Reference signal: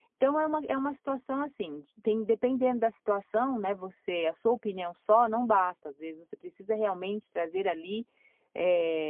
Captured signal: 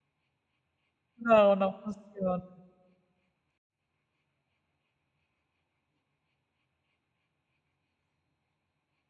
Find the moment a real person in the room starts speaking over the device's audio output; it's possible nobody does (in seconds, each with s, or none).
1.2 s